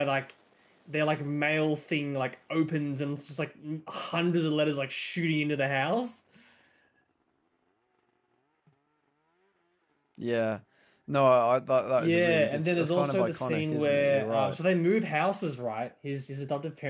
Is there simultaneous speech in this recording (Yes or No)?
Yes